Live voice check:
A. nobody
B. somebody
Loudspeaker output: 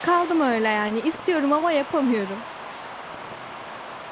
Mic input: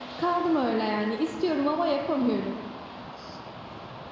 A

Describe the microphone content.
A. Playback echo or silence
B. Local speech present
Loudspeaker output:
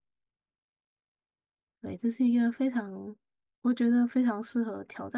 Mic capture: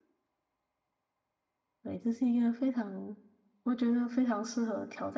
A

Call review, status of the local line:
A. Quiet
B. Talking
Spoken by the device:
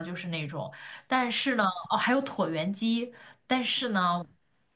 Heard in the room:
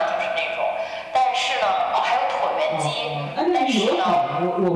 B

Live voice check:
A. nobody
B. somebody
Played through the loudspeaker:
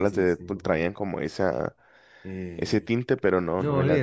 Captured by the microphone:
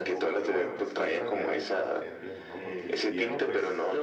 B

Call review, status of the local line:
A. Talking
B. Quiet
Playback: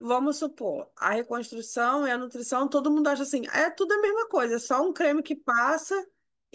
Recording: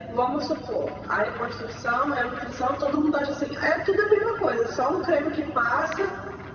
B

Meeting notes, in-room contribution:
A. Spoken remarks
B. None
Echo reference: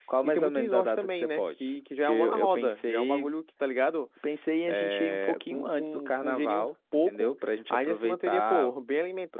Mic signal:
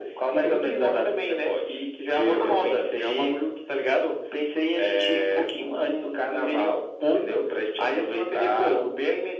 B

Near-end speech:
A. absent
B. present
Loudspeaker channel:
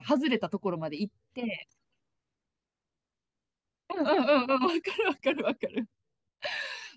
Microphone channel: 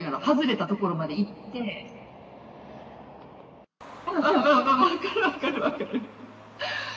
A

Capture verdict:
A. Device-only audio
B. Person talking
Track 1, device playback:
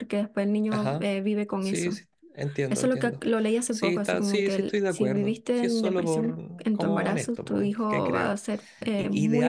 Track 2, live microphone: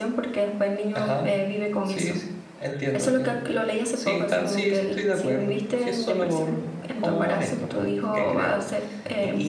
A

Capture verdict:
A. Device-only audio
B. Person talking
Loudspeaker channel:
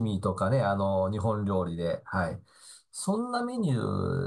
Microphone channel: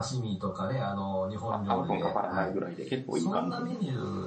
B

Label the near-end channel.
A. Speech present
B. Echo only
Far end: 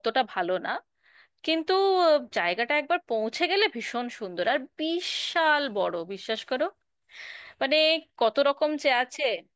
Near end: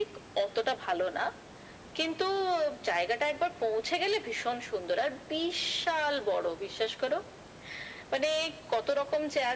B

